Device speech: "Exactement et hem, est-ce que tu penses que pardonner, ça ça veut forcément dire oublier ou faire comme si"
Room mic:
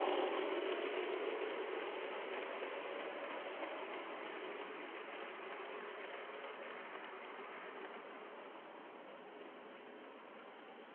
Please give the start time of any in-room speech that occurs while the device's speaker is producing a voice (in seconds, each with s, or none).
none